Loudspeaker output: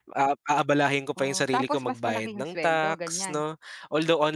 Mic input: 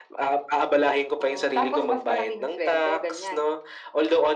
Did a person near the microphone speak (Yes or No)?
No